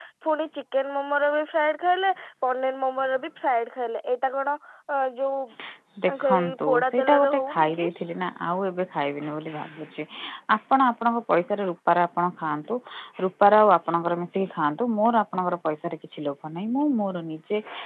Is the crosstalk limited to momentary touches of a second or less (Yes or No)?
No